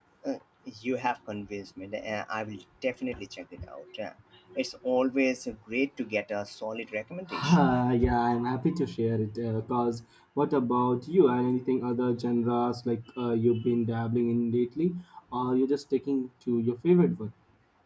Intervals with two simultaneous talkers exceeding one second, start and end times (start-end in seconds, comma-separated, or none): none